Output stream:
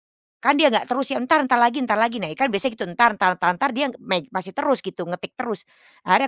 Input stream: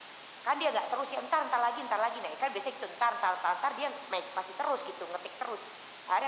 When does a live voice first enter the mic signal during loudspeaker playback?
none

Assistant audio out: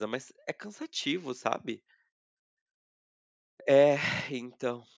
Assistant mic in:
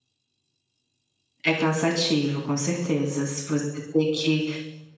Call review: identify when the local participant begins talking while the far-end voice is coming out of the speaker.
1.4 s

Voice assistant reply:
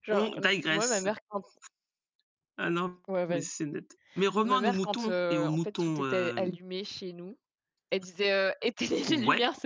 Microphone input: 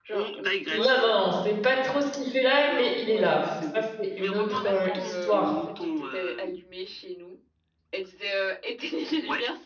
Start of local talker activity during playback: 0.7 s

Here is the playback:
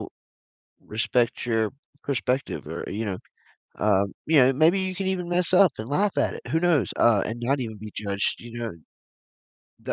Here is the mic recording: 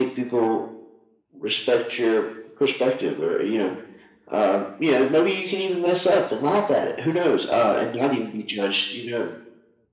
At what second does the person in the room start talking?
none

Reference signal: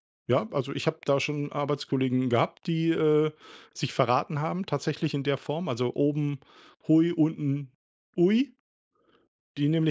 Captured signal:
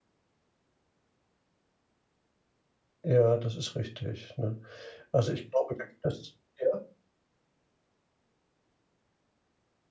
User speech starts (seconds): 3.0 s

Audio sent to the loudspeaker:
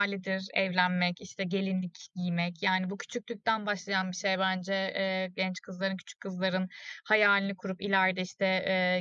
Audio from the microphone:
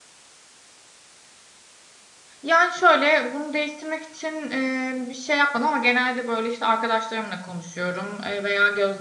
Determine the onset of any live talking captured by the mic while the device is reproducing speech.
2.4 s

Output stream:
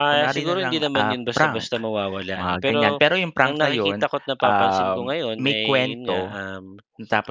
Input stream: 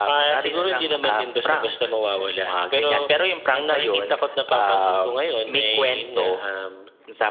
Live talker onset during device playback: none

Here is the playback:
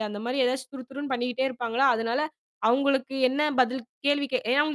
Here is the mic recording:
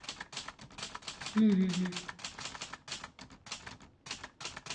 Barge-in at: 1.4 s

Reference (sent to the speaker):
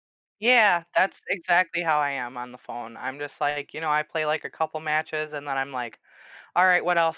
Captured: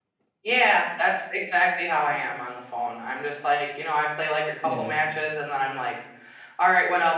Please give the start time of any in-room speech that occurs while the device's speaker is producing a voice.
4.6 s

